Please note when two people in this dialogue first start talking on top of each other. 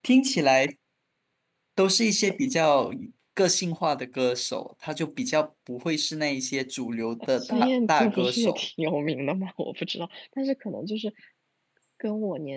7.3 s

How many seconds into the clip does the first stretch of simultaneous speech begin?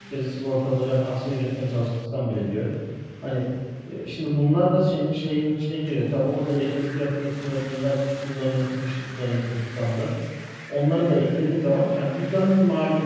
none

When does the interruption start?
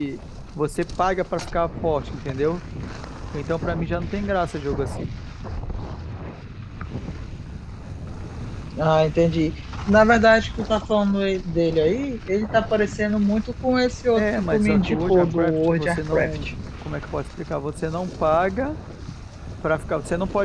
14.2 s

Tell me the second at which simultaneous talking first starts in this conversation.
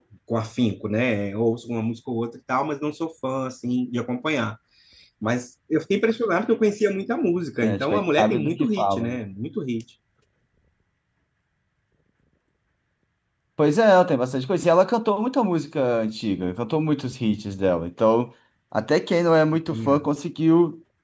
7.6 s

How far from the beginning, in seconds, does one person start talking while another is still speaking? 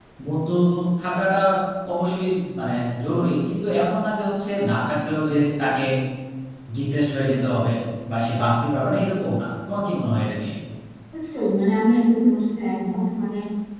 none

